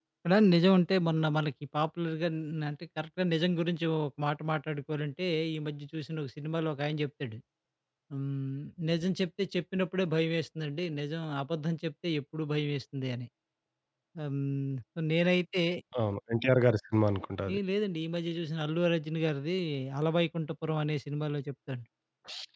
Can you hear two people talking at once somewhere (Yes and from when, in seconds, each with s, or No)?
No